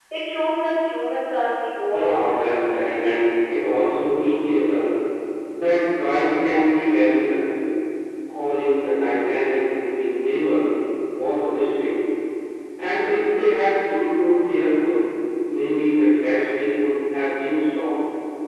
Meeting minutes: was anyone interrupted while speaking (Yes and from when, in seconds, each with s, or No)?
Yes, from 1.9 s